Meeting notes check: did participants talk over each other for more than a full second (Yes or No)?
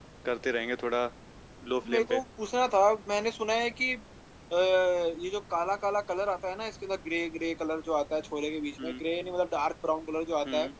No